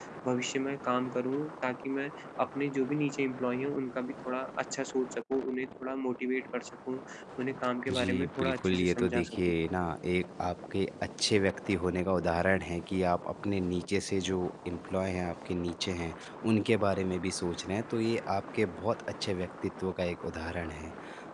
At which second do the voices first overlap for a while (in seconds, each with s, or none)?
7.9 s